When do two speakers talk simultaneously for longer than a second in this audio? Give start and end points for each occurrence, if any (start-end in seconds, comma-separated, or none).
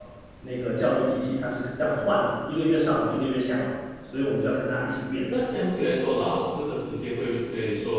none